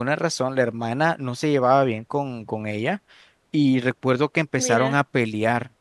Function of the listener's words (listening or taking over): listening